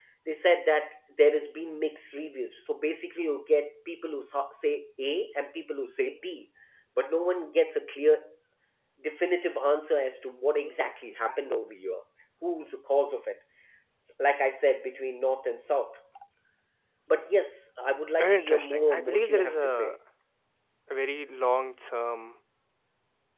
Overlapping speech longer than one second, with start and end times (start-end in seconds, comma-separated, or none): 18.2-19.9